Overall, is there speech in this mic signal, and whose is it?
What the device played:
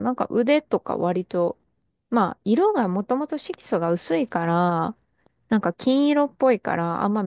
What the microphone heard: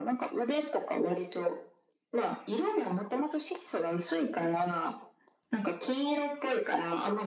echo only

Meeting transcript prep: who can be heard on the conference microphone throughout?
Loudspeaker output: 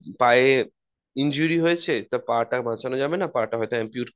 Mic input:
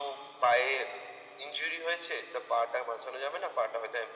echo only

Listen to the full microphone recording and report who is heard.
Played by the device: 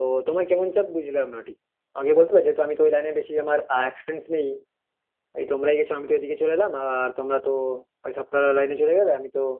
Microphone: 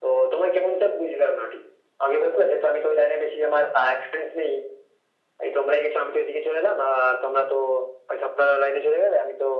echo only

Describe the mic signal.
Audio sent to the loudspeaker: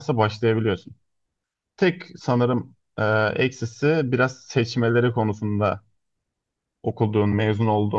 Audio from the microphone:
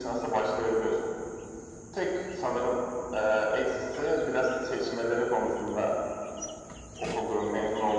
echo only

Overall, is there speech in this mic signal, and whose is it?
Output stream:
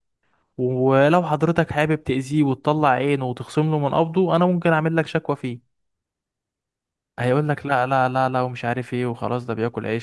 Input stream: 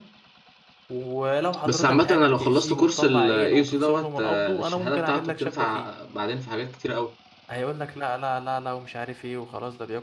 both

